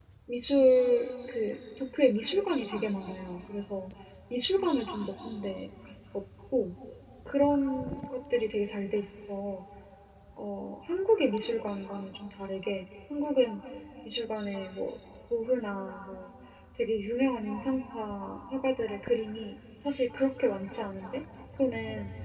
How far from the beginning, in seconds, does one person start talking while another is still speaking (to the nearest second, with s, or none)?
none